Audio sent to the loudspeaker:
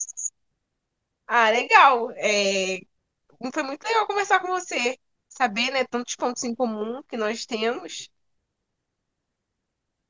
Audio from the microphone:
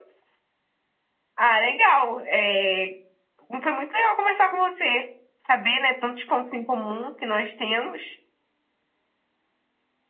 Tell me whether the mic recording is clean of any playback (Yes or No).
No